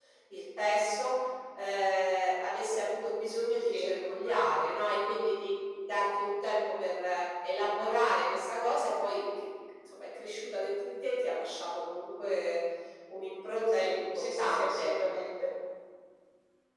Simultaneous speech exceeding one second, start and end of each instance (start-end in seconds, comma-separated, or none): 13.7-14.9